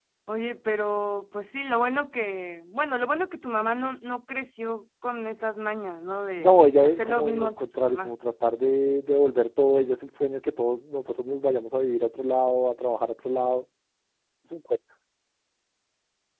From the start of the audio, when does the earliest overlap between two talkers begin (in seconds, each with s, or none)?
6.4 s